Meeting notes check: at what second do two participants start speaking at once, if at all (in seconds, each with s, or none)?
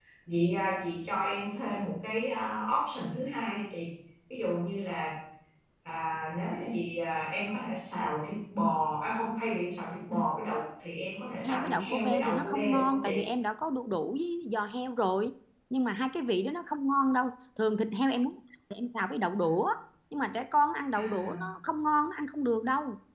11.4 s